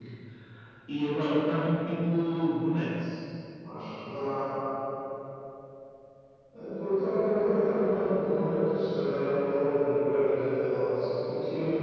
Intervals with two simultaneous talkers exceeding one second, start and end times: none

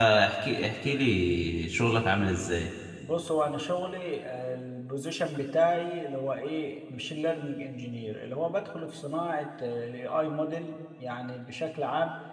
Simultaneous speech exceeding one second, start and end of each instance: none

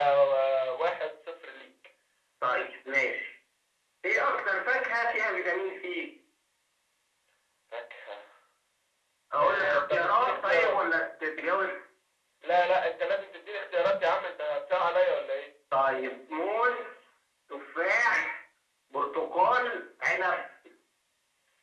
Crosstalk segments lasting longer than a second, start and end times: 9.4-10.8

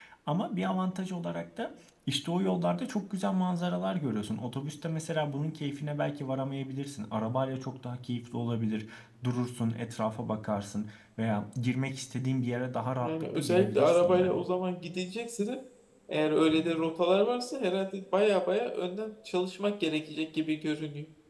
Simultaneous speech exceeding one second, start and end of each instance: 13.0-14.4

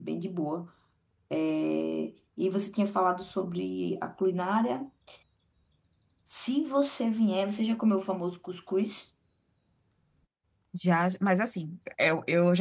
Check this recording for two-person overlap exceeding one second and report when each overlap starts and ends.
none

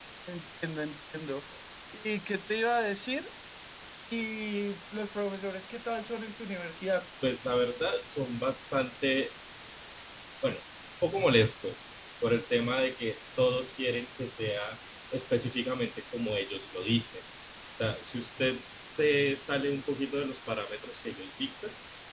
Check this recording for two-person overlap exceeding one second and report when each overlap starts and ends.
none

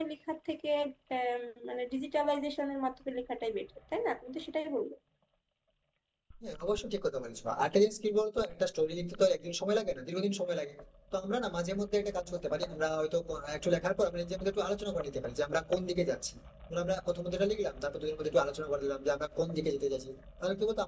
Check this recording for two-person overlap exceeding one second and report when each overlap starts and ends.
none

